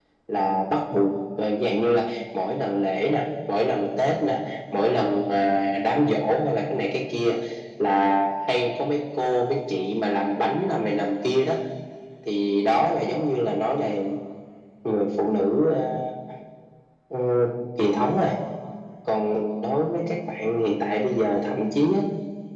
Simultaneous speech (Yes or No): No